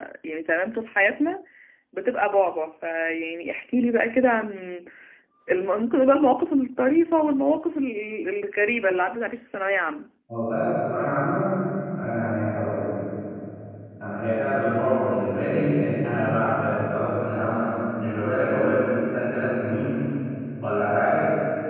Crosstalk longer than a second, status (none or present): none